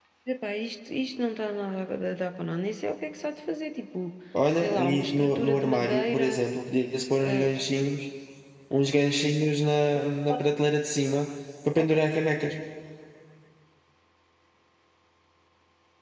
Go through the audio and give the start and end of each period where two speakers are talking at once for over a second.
4.5-6.4

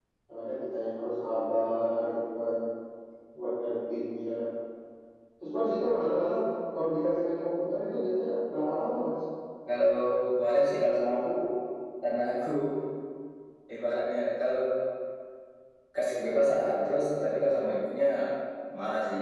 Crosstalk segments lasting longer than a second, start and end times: none

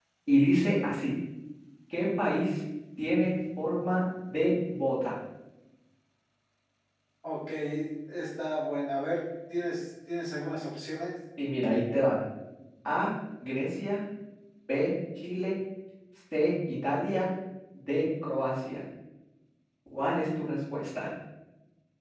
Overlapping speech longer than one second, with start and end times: none

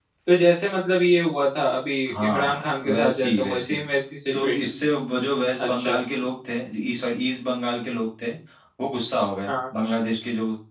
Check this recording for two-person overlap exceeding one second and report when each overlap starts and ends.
2.1-3.8

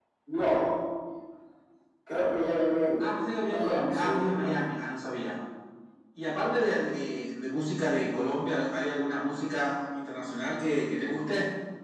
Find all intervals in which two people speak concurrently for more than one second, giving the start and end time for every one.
3.0-4.6

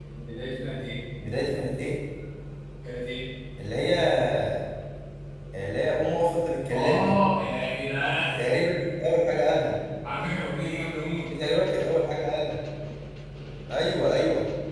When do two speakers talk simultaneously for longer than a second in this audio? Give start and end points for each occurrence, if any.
none

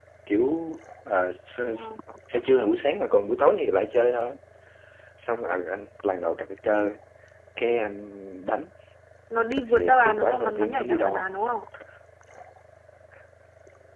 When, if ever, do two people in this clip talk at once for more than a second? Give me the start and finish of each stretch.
9.7-11.2

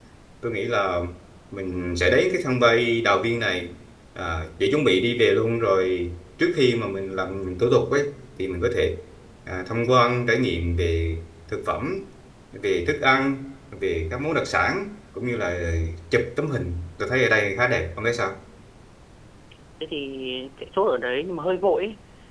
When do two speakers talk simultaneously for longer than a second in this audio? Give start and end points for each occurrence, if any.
none

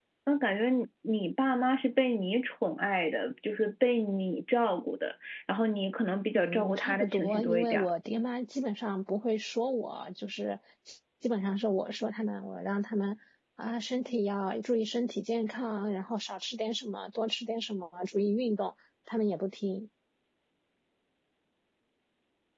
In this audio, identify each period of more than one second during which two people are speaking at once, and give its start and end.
6.4-7.9

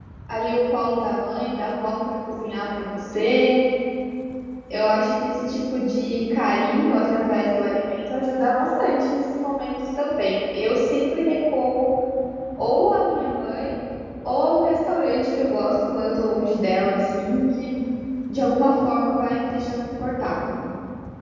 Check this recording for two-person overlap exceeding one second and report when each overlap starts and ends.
none

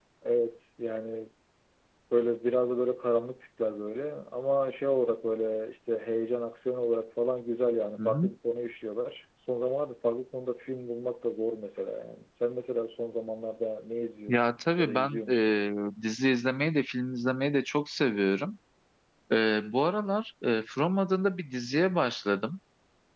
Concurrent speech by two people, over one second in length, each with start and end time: 14.3-15.5

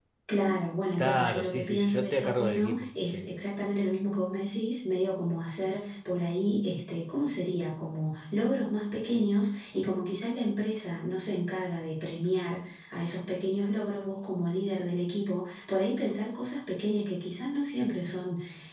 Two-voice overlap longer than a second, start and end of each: 1.0-3.2

